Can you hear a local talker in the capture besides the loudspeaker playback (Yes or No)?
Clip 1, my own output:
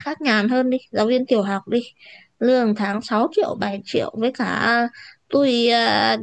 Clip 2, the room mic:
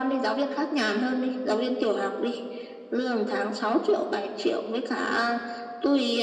No